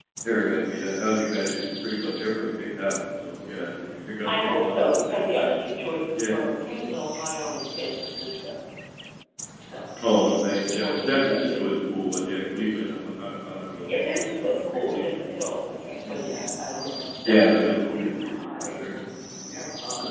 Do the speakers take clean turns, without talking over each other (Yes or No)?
No